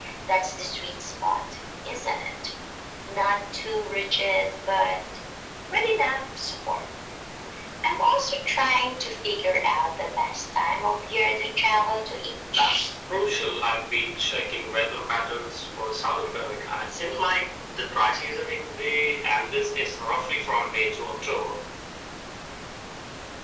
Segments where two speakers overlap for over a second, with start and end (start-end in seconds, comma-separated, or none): none